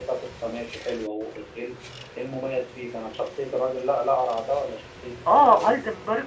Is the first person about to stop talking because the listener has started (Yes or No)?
Yes